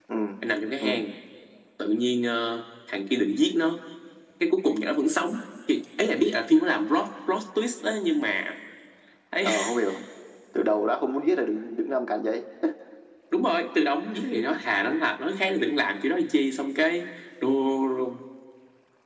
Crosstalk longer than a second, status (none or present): none